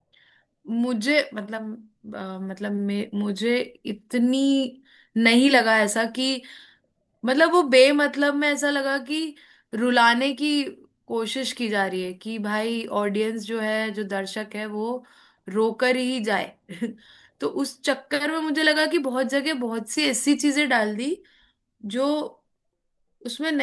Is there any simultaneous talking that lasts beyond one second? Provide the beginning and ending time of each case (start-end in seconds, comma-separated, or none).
none